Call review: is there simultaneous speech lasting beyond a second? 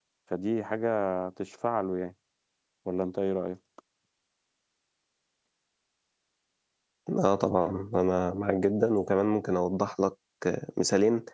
No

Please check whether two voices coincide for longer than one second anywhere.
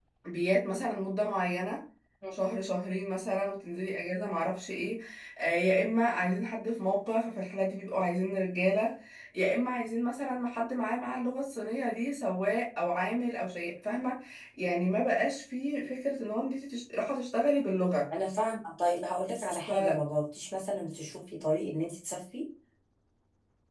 No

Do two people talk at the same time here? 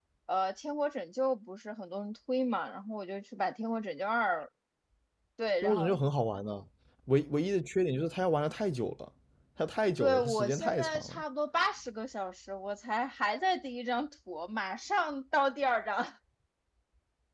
Yes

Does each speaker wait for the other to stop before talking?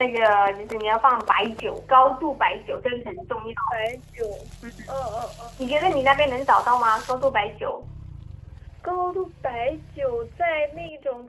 Yes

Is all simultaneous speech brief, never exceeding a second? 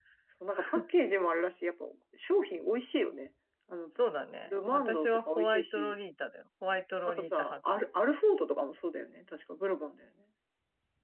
No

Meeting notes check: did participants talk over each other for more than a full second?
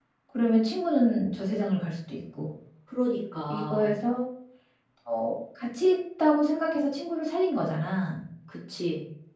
No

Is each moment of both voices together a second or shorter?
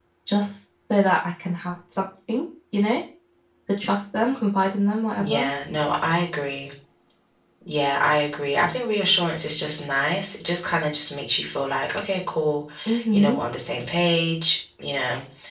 Yes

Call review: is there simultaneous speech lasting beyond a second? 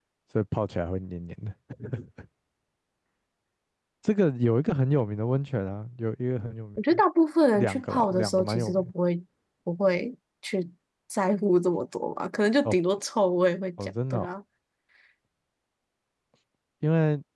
Yes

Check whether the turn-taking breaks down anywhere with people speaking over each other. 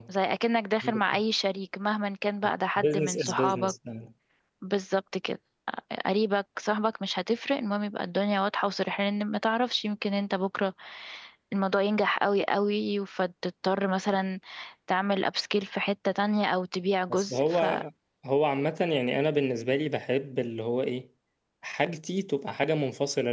Yes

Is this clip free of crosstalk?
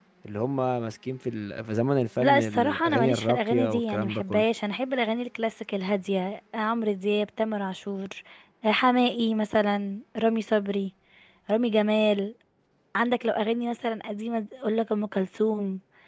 No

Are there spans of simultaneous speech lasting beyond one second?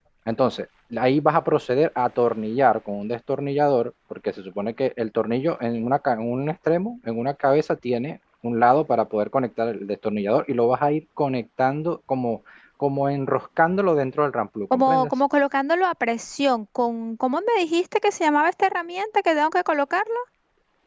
No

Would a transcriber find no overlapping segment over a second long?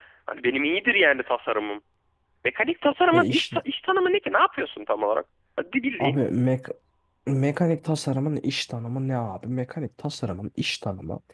Yes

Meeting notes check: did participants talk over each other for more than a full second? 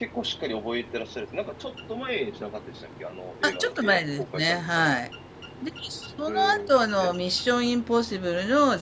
Yes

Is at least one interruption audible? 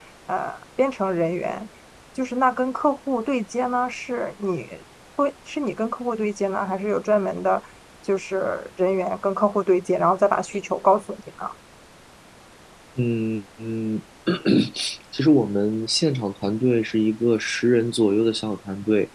No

